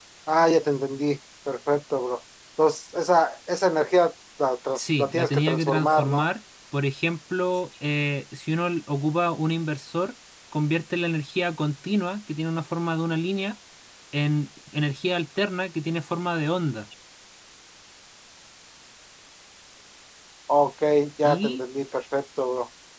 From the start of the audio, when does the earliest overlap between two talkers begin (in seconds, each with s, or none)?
4.7 s